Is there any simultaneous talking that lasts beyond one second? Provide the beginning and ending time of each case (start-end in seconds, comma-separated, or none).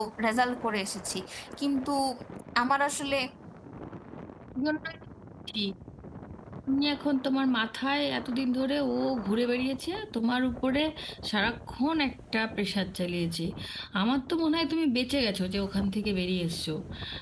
none